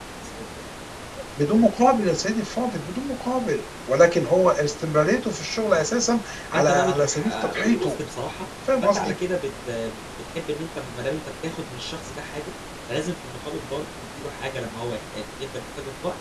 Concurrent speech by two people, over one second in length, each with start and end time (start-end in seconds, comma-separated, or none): 6.5-8.0